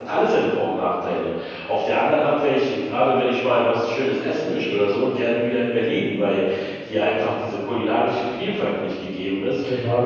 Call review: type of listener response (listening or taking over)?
taking over